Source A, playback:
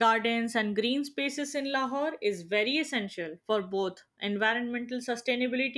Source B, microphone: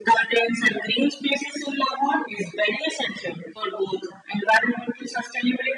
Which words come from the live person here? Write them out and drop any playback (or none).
none